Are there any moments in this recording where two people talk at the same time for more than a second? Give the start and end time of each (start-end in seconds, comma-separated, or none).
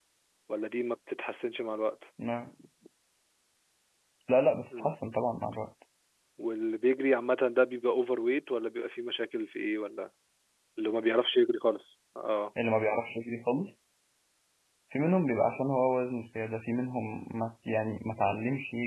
none